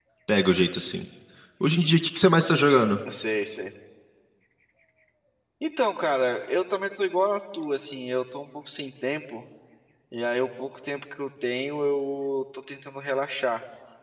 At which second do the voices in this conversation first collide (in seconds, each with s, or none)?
none